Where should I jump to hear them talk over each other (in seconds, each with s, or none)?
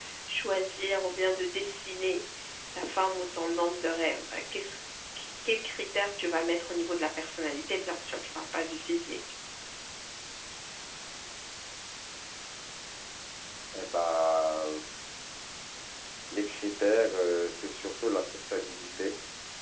none